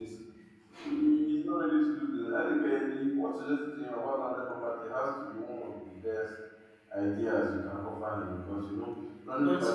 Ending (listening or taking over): listening